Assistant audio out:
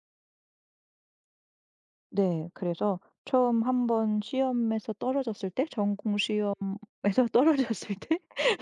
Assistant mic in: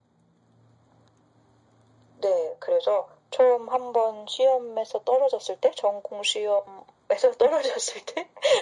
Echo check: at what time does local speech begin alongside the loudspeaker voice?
none

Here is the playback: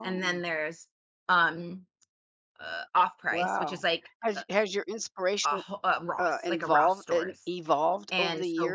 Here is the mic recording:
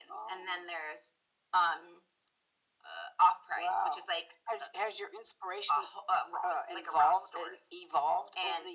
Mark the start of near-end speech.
none

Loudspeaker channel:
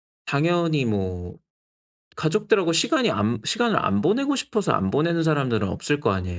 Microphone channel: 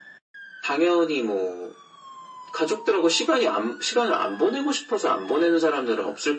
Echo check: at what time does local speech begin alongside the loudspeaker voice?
none

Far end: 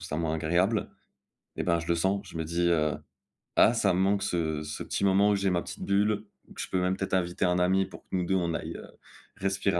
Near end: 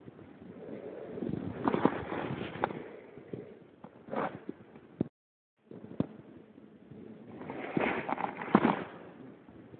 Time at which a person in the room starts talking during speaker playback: none

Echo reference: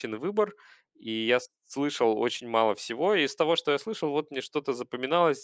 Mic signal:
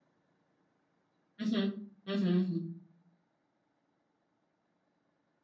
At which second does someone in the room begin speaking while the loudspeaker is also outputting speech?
1.4 s

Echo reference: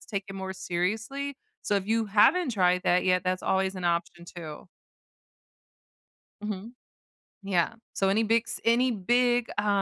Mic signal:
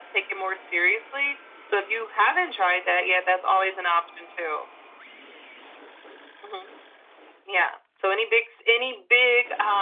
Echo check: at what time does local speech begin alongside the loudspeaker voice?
none

